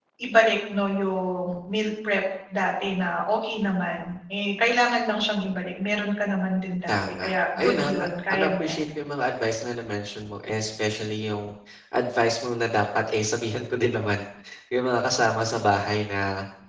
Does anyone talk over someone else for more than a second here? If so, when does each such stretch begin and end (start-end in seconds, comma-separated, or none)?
6.9-8.8